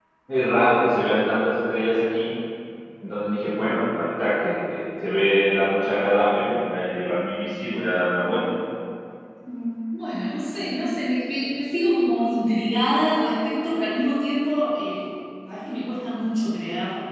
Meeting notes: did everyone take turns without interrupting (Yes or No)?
Yes